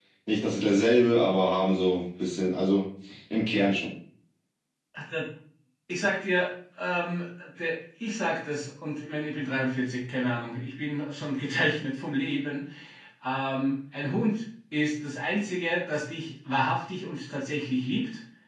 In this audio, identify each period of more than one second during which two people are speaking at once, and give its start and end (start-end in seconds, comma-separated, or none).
none